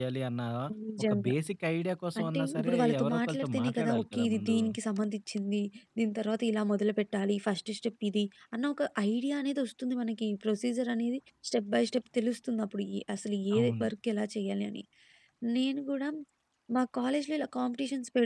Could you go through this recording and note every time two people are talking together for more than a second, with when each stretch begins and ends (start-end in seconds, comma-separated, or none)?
2.2-4.6